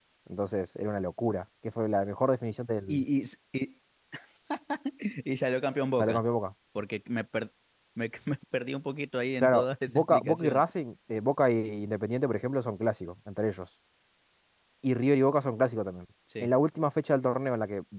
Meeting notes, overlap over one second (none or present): present